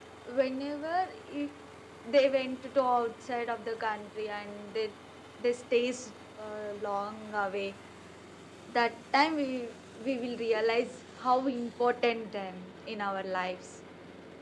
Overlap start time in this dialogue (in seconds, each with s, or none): none